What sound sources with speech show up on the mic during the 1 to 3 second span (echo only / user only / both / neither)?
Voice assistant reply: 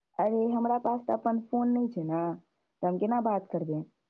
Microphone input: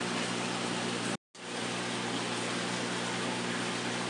neither